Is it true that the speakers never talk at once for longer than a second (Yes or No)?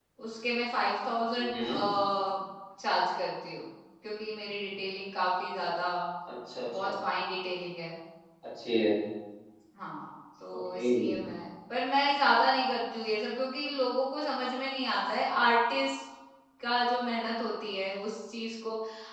Yes